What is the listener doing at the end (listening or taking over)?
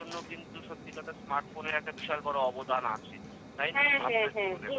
taking over